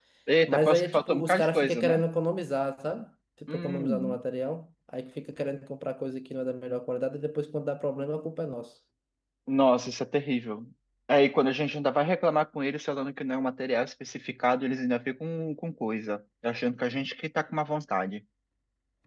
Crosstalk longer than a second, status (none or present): present